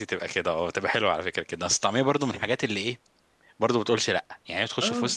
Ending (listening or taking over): listening